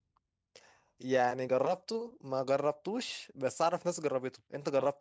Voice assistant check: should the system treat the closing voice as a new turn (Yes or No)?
Yes